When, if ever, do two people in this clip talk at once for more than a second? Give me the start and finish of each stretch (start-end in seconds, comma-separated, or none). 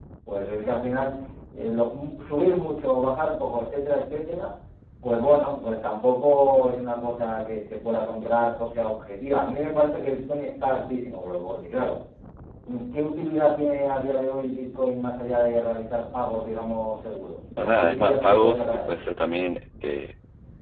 17.6-19.0